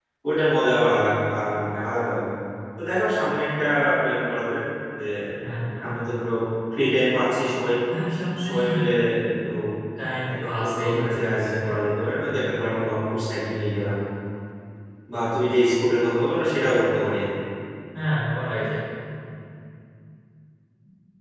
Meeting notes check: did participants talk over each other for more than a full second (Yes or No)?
Yes